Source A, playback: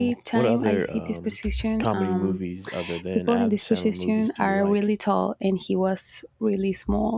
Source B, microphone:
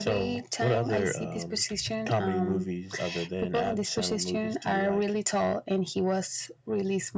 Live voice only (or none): none